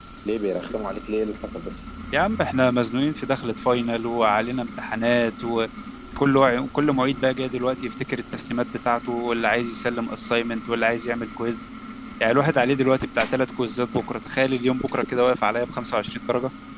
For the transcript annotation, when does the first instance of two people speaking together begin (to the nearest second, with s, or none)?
none